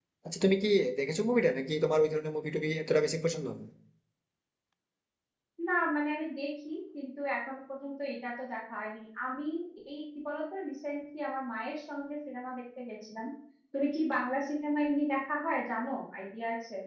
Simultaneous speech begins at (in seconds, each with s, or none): none